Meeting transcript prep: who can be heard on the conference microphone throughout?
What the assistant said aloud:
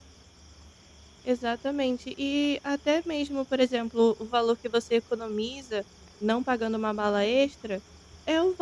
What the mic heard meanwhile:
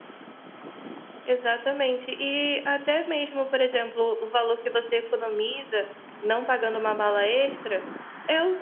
echo only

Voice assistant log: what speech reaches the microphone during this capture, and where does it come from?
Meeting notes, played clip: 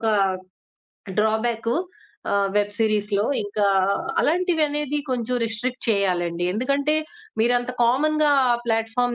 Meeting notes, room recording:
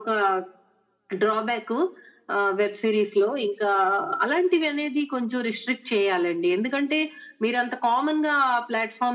echo only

